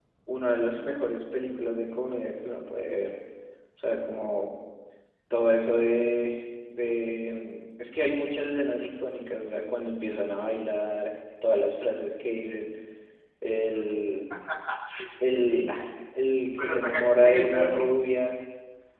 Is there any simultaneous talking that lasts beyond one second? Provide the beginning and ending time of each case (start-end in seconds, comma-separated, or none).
16.6-17.9